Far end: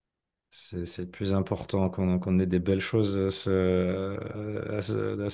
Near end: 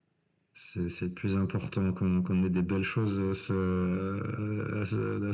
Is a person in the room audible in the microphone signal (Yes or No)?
No